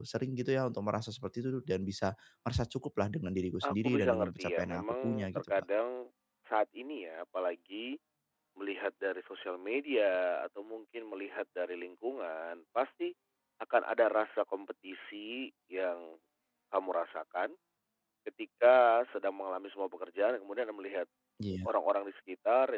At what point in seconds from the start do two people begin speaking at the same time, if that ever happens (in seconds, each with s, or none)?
3.6 s